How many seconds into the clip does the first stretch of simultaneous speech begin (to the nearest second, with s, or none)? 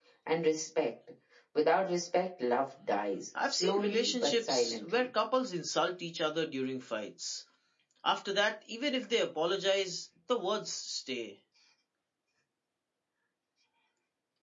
3 s